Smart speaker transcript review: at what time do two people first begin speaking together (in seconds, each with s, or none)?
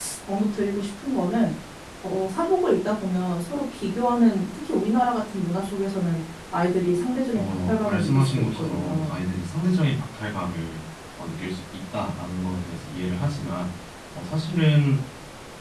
7.3 s